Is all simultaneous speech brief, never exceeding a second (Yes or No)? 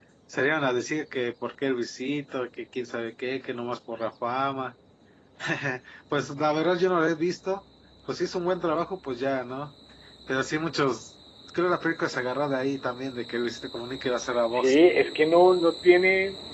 Yes